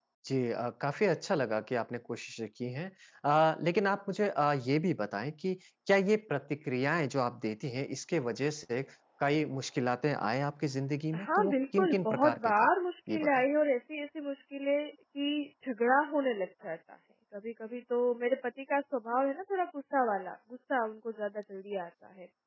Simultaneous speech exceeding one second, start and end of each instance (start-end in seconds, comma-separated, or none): 11.1-12.7